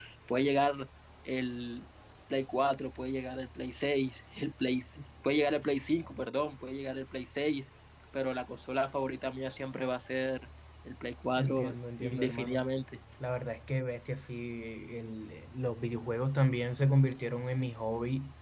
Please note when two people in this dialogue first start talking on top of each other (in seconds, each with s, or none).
11.4 s